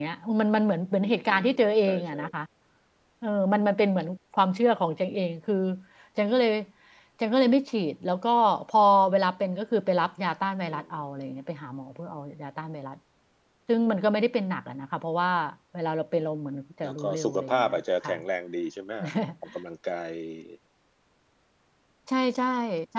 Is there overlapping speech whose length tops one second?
Yes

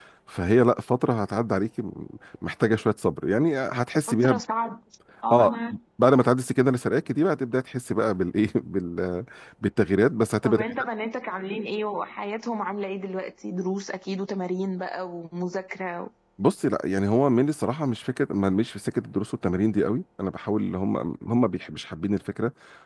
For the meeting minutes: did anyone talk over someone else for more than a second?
No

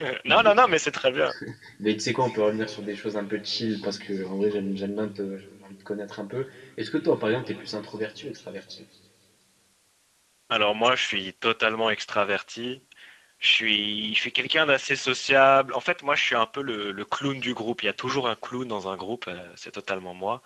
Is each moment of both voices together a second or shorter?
Yes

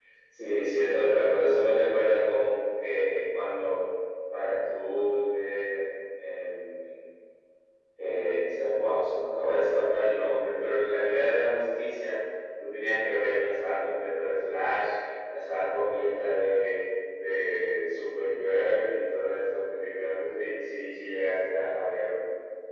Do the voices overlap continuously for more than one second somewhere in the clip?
No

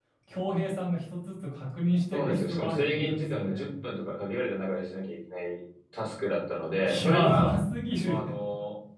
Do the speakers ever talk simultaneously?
Yes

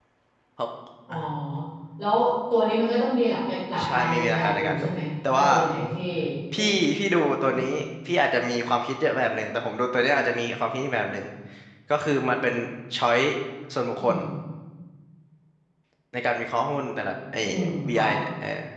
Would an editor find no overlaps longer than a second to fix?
No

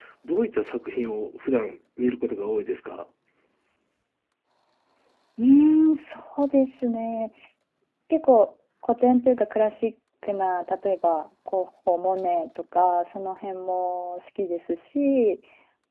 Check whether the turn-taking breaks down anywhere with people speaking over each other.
No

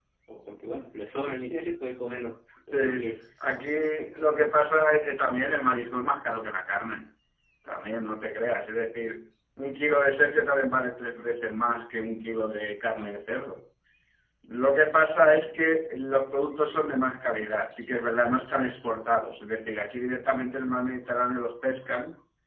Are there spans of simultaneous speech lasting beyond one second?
No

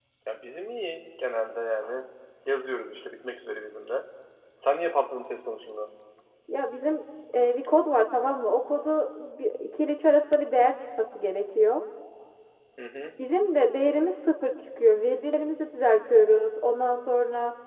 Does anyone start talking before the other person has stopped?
No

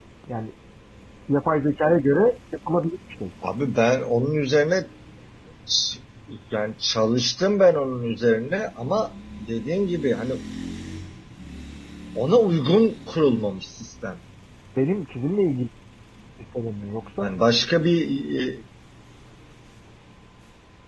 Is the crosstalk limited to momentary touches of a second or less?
Yes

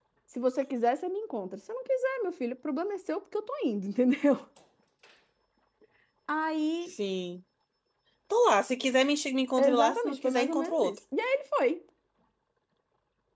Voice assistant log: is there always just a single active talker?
No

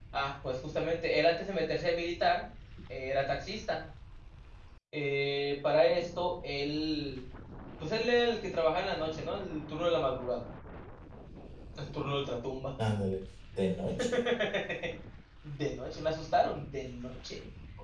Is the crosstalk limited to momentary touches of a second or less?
Yes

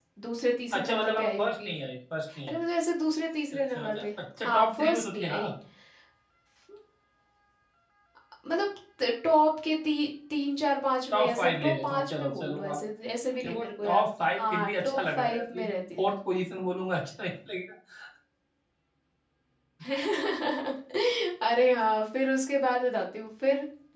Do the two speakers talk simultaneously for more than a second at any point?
Yes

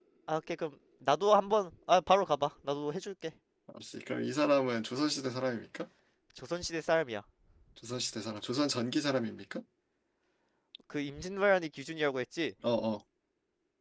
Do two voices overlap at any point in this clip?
No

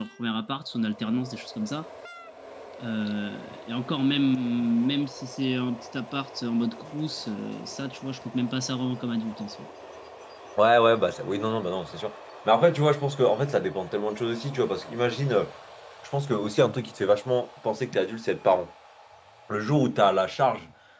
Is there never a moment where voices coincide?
Yes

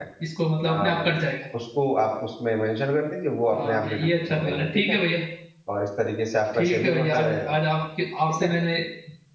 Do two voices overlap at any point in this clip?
Yes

